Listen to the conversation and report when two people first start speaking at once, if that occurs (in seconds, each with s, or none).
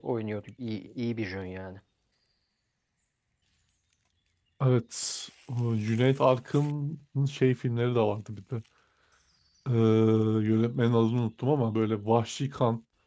none